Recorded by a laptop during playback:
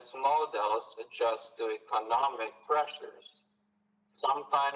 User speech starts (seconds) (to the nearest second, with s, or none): none